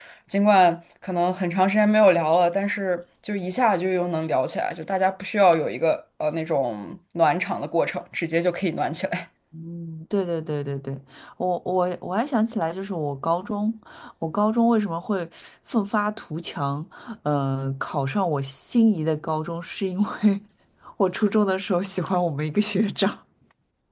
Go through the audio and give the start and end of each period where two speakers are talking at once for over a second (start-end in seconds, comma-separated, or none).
none